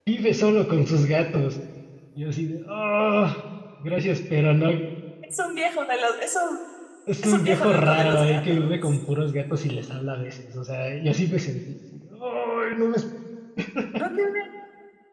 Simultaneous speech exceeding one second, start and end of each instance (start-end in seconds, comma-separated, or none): 7.2-9.0